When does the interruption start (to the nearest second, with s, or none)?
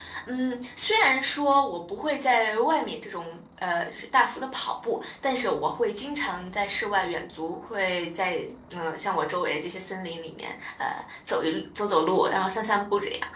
none